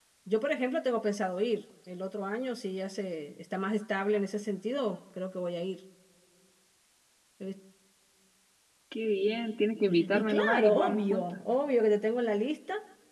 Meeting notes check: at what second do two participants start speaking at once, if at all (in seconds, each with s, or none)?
9.9 s